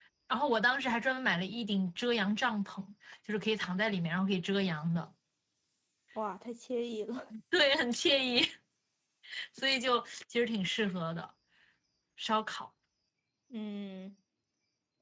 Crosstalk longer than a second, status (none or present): none